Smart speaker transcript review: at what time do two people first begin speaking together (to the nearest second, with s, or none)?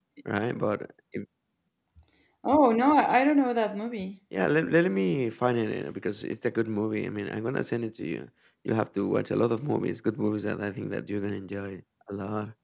none